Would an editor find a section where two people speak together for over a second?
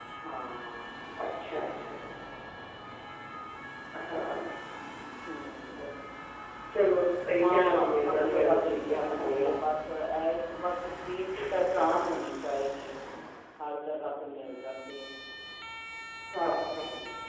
Yes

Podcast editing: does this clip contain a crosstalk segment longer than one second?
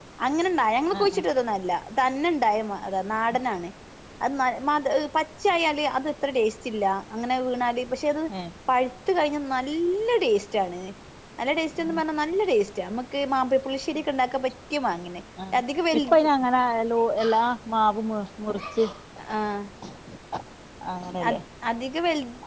No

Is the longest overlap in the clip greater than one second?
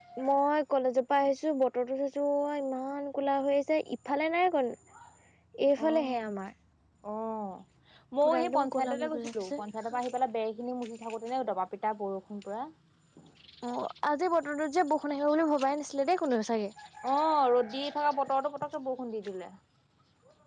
Yes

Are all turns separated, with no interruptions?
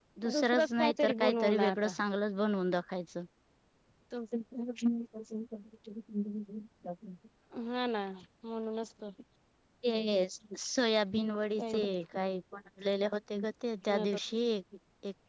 No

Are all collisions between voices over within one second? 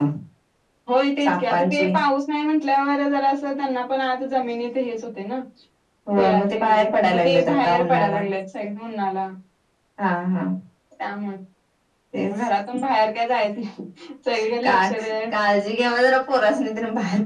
No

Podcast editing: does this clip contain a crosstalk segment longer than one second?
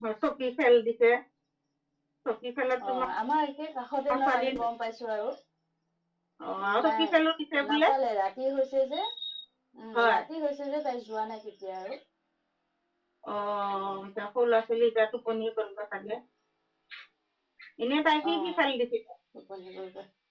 No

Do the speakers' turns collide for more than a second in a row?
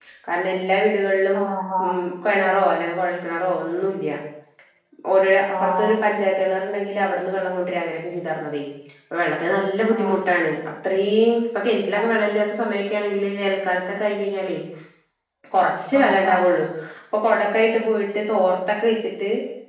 No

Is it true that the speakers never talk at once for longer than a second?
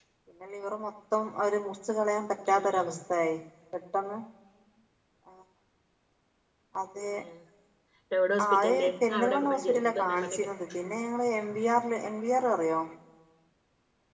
No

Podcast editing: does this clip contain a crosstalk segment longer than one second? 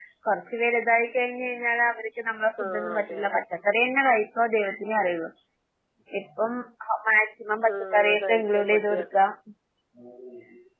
Yes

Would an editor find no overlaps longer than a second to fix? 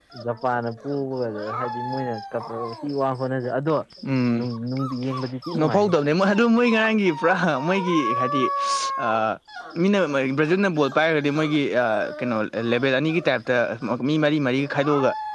Yes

